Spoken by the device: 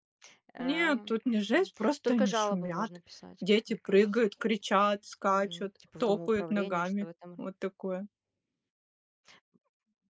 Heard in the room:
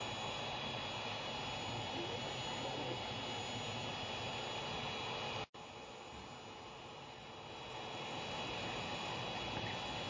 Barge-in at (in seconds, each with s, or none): none